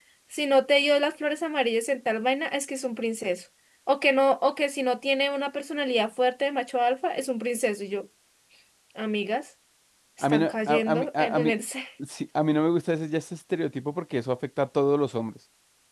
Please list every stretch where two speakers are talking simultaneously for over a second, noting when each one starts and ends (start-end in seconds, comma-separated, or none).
10.2-11.5